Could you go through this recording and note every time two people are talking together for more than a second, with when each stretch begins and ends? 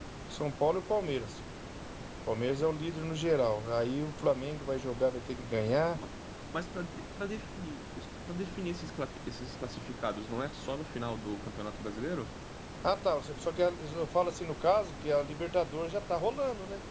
none

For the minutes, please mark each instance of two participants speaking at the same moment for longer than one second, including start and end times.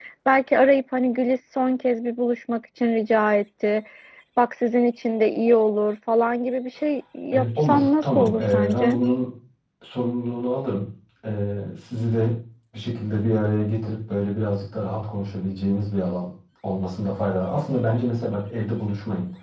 7.3-9.0

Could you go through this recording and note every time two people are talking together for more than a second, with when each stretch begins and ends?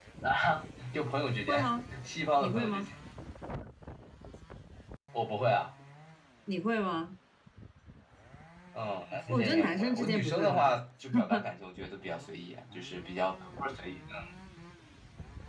9.3-10.7

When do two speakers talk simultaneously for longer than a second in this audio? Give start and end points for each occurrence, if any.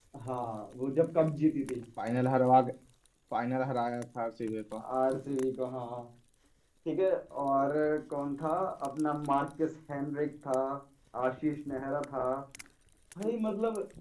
none

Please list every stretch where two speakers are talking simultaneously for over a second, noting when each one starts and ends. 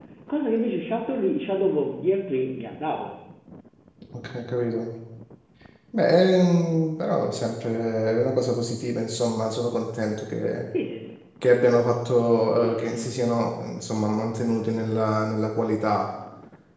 none

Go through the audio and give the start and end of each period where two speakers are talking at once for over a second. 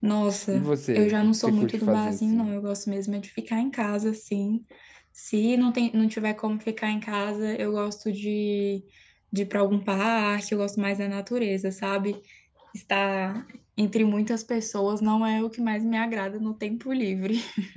0.5-2.5

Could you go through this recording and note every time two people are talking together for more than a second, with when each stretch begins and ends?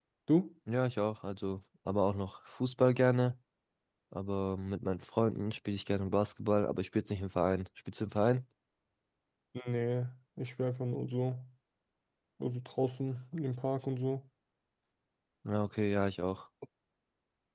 none

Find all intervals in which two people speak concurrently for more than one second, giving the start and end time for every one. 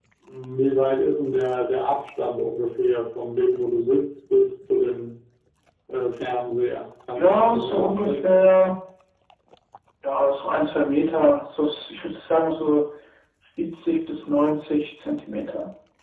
7.2-8.4

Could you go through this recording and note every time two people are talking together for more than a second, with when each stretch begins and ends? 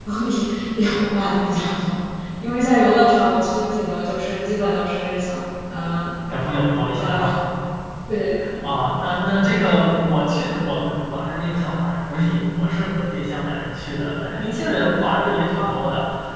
none

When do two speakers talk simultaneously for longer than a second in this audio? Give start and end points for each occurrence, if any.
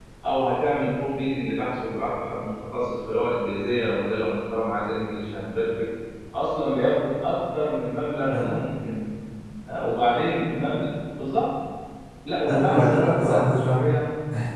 12.5-13.9

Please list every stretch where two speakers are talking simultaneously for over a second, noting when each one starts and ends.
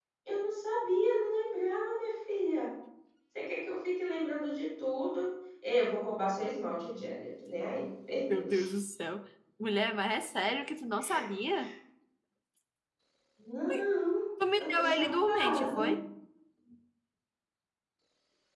14.6-15.9

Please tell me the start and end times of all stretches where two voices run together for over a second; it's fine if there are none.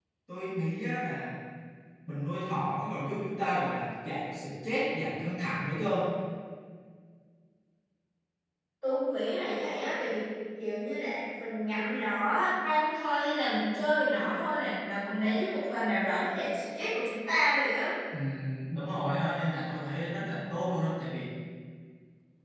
none

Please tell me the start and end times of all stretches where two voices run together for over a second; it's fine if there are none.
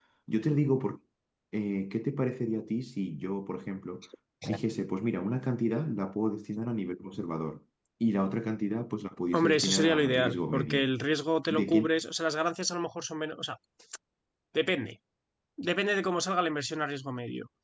9.3-10.9

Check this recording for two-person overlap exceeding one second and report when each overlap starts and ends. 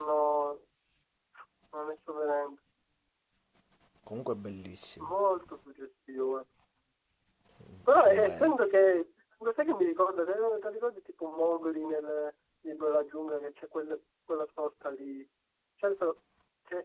none

